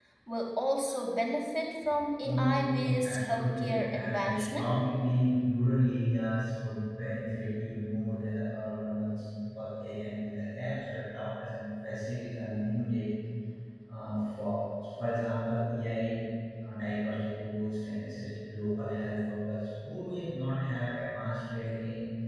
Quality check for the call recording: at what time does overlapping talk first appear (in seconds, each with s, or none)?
2.2 s